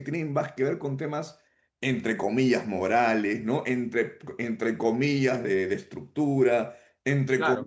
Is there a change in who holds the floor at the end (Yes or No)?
No